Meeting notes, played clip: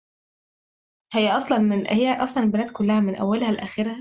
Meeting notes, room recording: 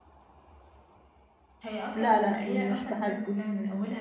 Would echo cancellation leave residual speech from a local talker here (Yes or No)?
Yes